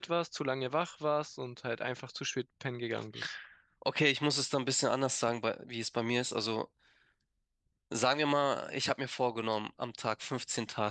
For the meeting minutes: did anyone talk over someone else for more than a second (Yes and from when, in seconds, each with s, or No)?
No